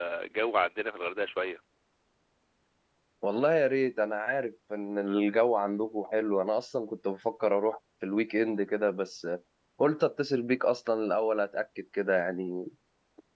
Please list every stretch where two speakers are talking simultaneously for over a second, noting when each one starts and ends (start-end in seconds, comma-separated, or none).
none